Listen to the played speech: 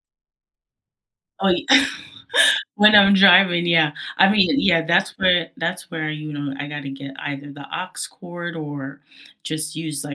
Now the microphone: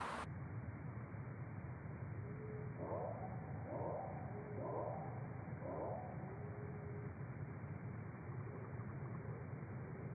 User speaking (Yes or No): No